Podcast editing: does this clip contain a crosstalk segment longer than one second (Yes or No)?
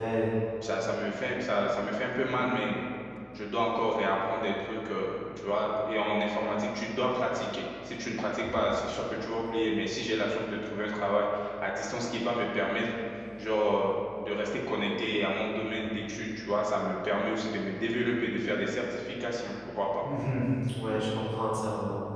No